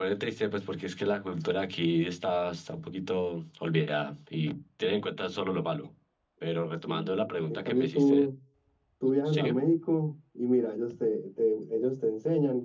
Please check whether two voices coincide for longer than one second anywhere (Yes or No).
Yes